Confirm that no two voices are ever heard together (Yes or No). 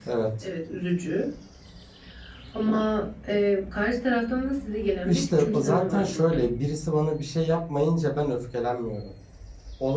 No